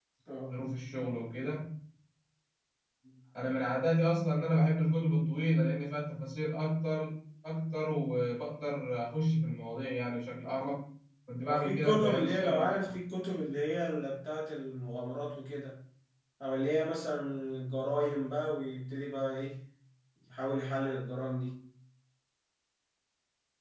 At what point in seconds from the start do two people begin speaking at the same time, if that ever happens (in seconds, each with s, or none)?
11.4 s